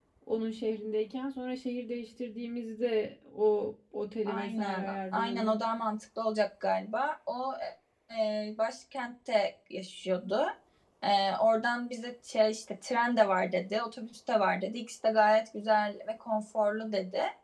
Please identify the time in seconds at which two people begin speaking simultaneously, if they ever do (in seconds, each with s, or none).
4.2 s